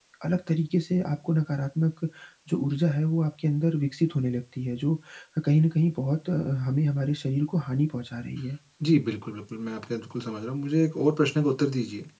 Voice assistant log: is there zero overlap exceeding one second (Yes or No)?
Yes